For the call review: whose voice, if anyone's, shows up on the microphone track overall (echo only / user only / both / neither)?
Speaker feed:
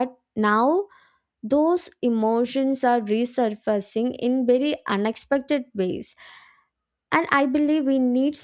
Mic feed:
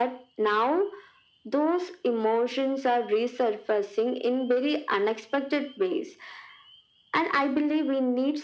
echo only